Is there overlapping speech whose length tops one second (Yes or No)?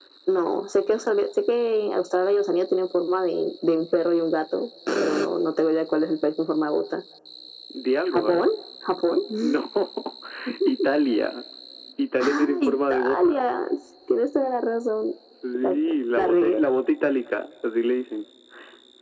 Yes